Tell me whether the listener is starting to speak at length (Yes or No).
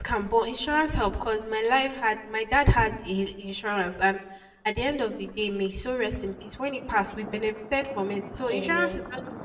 No